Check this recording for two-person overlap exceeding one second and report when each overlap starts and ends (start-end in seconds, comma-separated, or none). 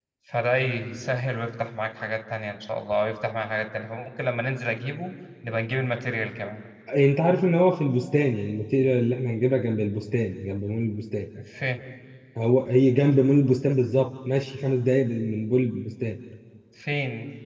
none